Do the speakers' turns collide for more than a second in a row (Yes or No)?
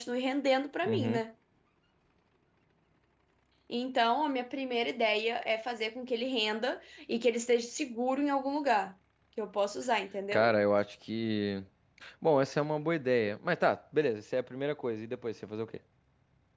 No